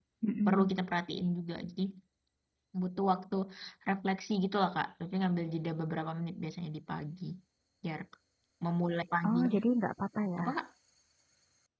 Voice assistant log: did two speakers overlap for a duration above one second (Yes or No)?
No